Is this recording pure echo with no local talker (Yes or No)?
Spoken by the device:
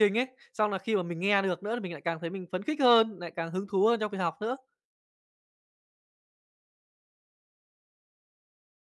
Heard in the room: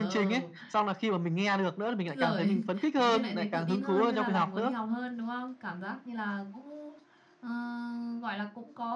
No